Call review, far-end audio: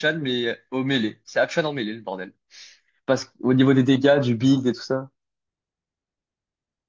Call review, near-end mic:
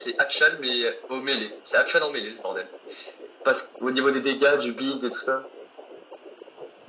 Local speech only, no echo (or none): none